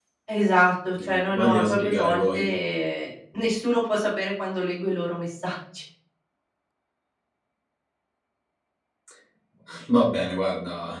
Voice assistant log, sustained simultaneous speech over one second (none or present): present